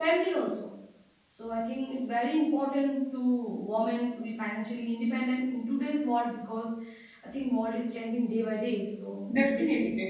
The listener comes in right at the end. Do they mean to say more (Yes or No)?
Yes